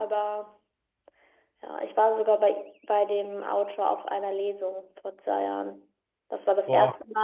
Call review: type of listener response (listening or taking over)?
listening